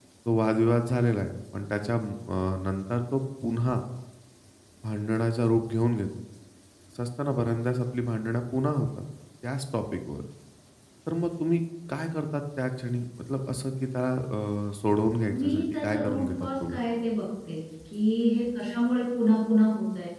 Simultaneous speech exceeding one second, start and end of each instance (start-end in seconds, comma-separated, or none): 15.3-16.8